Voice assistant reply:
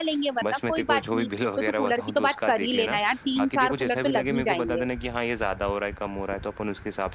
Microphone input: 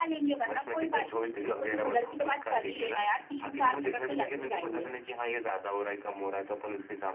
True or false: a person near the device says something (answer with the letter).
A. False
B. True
A